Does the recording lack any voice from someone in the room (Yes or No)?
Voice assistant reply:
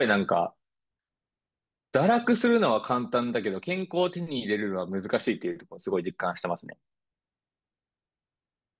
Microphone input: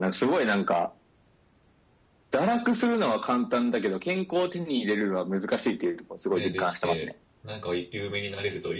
No